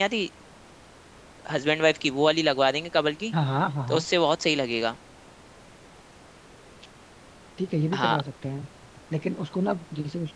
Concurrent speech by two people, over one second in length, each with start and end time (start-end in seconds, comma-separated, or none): none